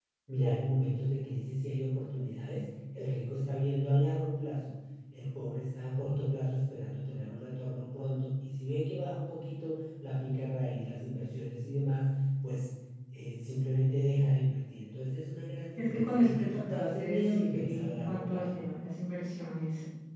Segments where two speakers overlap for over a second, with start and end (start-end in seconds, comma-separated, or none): 15.8-18.4